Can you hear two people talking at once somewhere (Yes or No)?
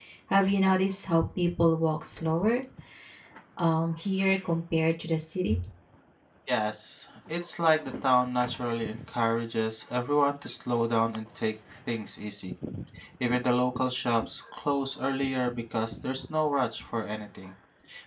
No